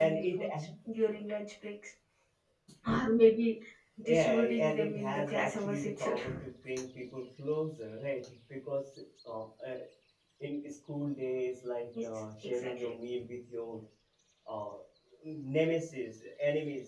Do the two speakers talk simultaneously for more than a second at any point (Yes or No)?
Yes